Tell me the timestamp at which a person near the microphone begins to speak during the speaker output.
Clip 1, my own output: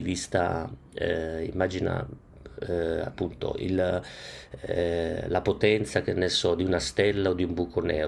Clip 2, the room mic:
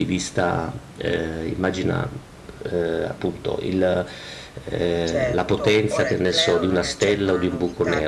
5.0 s

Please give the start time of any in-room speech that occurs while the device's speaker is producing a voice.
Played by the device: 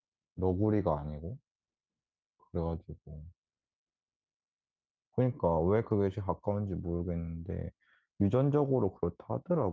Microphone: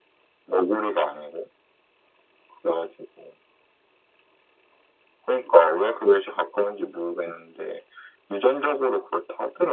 none

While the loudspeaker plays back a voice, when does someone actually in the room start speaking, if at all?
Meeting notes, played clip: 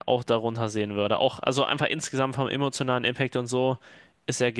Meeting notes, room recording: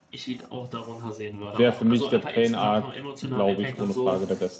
1.5 s

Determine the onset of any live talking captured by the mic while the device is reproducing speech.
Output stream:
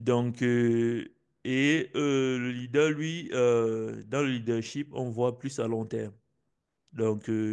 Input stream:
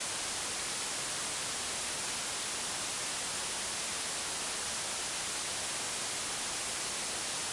none

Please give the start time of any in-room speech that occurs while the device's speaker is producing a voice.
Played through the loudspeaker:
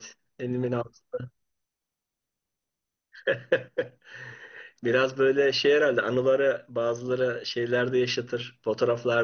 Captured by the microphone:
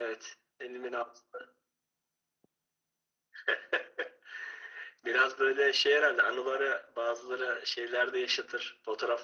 none

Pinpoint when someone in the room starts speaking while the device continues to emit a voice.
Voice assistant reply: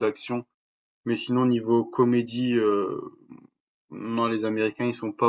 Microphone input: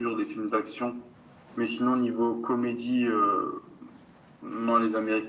none

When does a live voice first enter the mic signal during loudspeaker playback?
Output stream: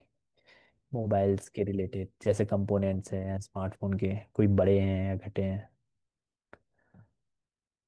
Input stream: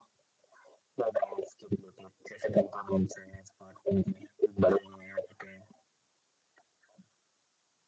none

